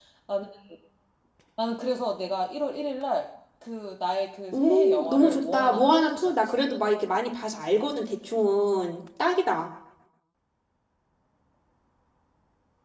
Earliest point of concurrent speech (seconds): 4.5 s

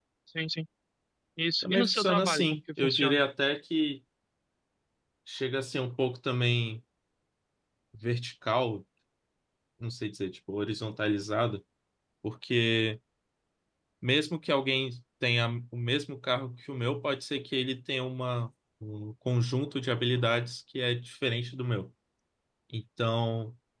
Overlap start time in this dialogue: 1.6 s

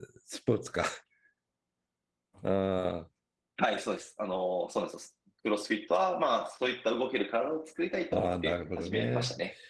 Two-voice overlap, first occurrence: 8.1 s

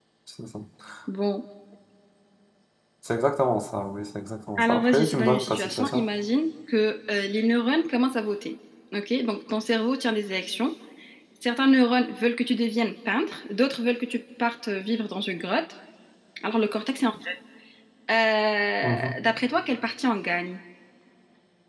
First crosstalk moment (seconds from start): 4.6 s

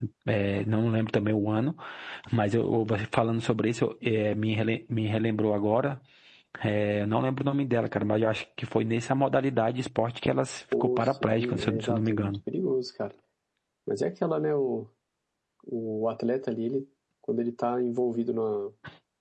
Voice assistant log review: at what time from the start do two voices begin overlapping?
10.7 s

